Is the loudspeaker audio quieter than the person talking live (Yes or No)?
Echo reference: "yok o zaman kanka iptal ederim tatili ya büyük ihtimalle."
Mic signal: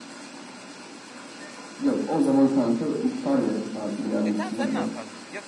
No